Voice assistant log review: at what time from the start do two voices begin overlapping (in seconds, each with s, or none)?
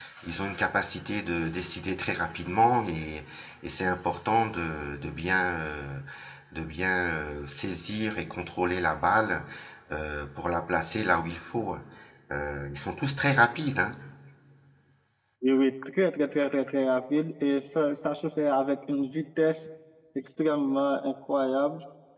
none